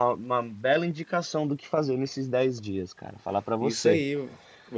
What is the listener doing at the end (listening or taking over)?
taking over